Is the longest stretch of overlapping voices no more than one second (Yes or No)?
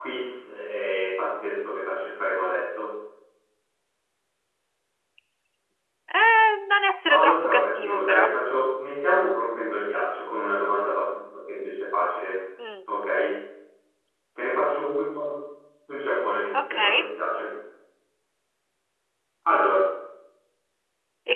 No